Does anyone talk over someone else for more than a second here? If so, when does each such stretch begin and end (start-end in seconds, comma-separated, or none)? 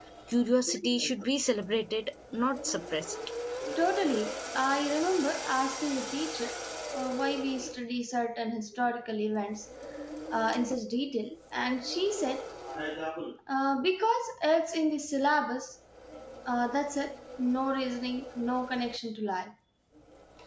none